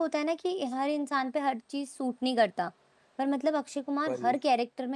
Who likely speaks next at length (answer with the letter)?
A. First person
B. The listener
A